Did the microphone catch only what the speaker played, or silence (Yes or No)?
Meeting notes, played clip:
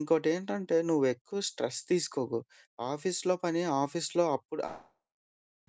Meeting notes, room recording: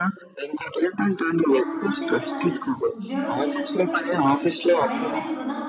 No